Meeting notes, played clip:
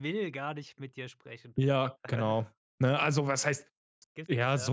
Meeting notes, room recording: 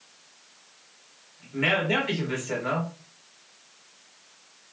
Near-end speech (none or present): present